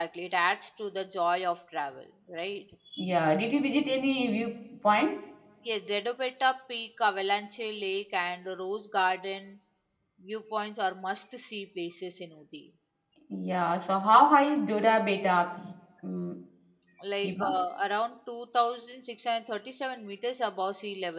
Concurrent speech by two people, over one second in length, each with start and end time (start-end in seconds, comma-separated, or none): none